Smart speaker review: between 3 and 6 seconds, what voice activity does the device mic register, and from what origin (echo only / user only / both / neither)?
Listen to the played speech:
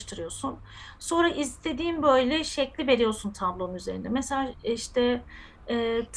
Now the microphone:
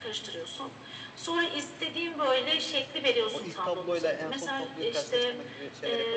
both